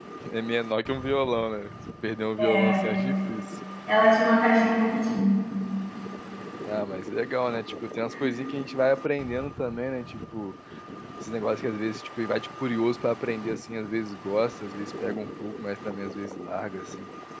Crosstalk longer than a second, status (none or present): none